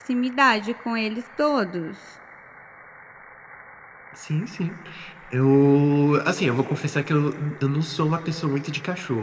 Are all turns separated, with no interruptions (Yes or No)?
Yes